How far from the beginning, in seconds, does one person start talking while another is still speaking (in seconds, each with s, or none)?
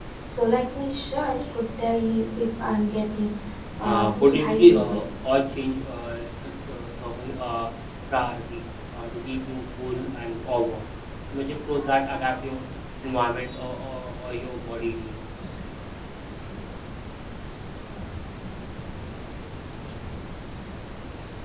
3.8 s